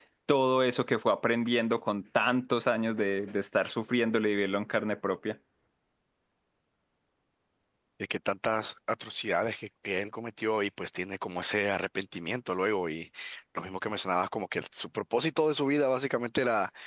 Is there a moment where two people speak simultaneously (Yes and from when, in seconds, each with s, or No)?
No